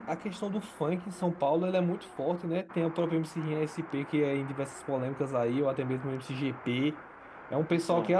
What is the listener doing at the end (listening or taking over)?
listening